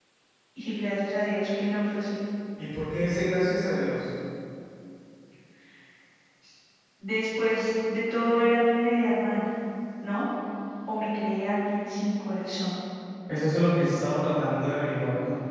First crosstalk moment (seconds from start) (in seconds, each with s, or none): none